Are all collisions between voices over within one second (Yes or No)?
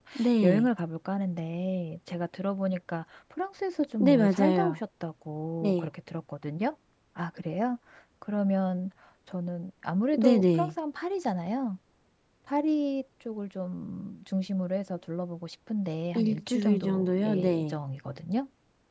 No